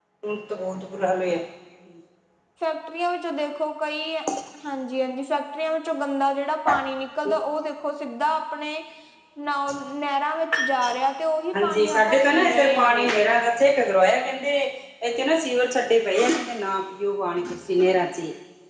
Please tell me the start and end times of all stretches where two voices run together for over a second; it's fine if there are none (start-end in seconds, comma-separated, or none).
11.6-13.1